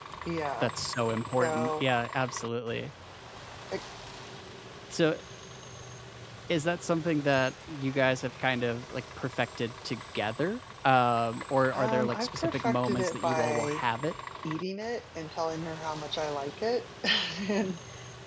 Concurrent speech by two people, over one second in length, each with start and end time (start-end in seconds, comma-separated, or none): 11.7-13.8